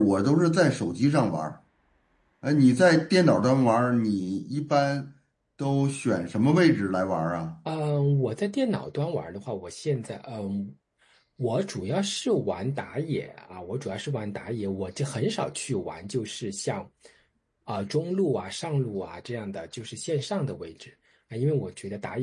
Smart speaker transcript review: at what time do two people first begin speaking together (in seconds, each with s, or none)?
none